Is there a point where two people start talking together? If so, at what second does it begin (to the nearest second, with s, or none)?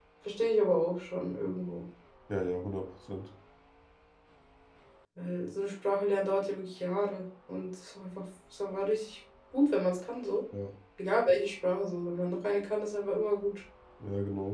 none